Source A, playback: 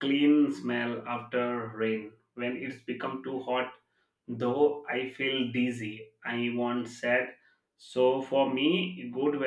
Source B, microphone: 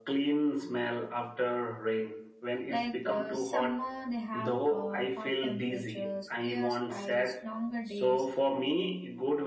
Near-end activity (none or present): present